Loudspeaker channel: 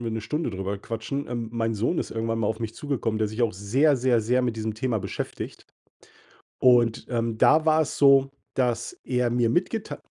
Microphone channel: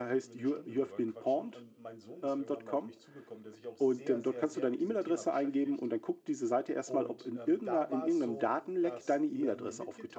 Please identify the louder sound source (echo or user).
user